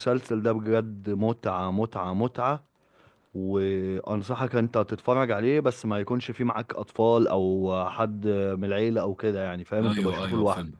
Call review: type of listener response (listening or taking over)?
taking over